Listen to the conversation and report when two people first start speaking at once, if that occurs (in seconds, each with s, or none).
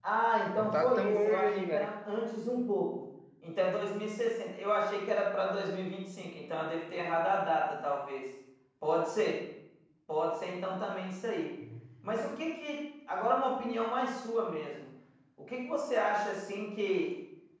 0.6 s